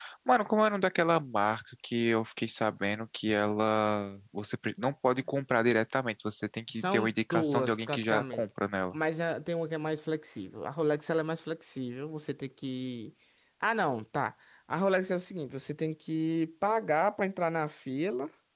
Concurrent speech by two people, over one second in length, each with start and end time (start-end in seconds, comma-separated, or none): 6.7-8.4